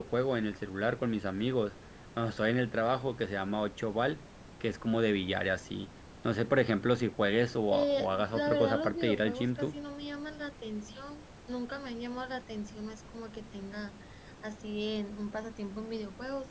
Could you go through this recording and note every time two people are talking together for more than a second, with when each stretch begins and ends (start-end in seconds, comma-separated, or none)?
7.7-9.7